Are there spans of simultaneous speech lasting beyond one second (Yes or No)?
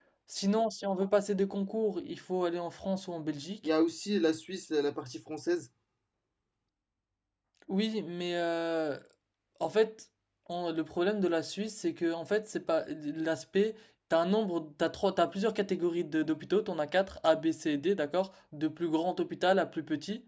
No